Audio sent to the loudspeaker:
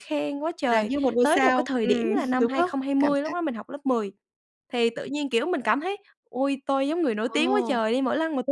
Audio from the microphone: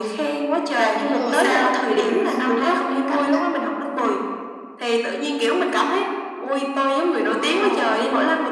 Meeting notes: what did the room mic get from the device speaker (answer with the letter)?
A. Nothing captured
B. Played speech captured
B